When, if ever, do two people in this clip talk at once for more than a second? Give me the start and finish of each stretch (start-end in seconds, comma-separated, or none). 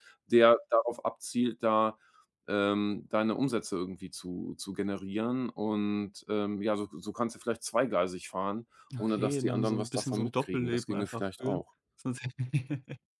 9.0-11.6